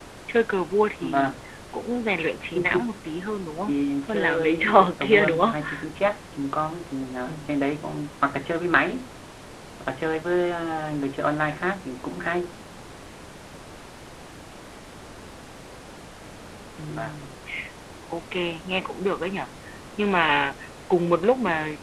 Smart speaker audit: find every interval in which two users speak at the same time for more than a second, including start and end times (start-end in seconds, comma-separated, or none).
4.1-5.5